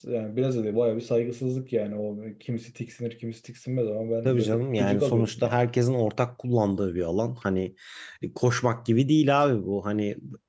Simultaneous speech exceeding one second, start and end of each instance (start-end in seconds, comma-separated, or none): 4.2-5.6